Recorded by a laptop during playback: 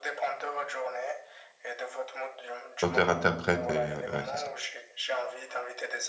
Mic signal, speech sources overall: both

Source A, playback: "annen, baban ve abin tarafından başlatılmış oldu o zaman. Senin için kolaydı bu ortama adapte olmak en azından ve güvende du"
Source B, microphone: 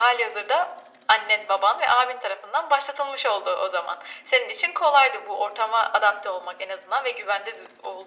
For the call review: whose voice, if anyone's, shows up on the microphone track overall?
echo only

